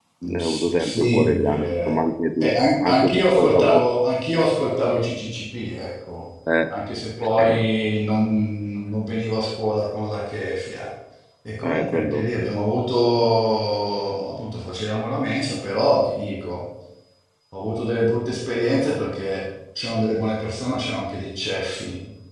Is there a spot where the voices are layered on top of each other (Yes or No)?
Yes